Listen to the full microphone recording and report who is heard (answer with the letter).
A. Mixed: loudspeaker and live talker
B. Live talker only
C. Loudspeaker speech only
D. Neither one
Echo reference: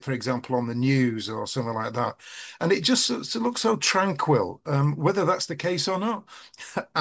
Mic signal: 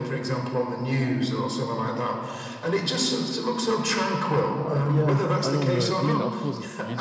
A